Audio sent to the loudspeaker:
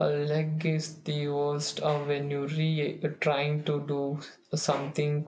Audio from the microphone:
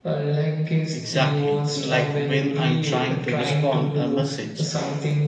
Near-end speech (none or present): present